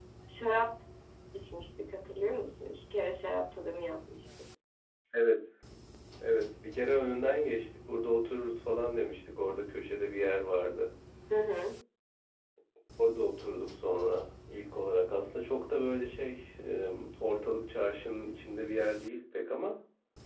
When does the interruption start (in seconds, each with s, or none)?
none